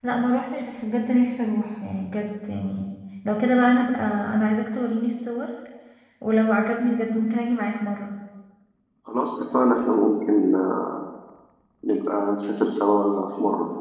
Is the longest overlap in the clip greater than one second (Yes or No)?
No